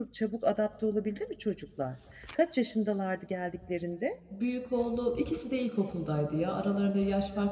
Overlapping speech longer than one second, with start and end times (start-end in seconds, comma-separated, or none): none